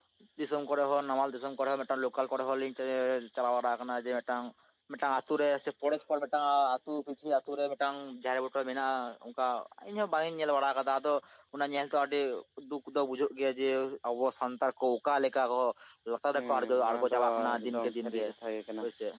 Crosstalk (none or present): present